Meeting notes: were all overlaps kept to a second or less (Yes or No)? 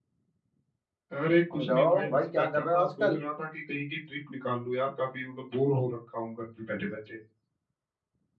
No